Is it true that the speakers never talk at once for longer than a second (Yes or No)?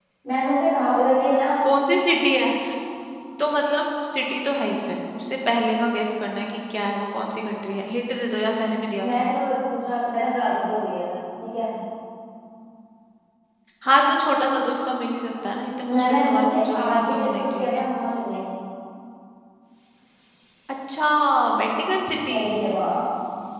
No